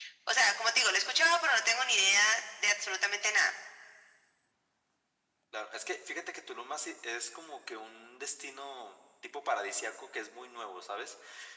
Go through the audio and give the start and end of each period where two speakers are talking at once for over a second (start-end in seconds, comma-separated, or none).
none